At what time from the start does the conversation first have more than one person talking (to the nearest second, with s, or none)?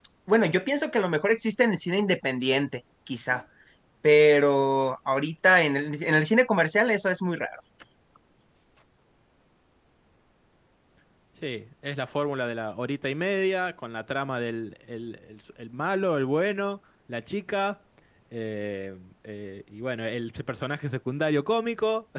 none